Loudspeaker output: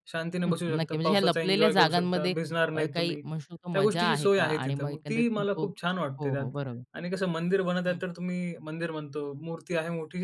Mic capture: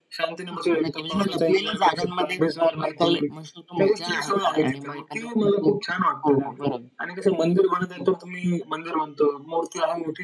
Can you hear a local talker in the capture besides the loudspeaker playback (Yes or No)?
No